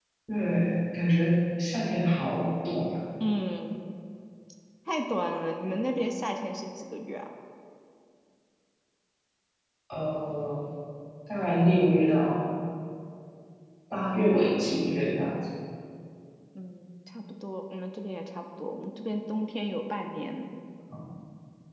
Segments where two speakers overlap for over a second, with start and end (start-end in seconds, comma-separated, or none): none